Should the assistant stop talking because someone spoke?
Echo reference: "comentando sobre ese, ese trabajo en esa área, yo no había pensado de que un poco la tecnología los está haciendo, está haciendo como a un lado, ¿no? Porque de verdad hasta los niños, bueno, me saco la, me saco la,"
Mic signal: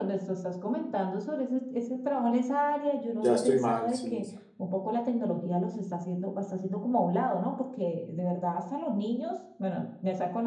Yes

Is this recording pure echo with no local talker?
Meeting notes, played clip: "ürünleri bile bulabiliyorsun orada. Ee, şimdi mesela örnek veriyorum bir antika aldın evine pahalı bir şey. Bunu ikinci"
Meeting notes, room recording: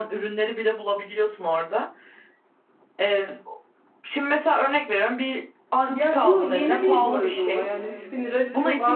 No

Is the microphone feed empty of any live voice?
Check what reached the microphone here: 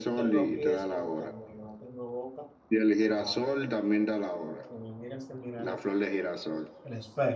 No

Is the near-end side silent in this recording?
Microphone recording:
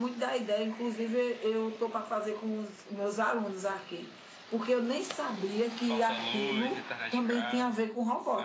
No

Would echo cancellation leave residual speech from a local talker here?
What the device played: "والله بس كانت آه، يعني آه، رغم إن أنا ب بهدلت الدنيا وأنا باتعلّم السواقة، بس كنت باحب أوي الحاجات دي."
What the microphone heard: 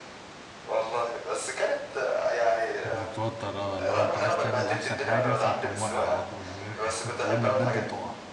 Yes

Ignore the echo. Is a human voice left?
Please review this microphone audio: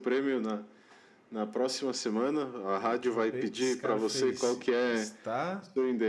Yes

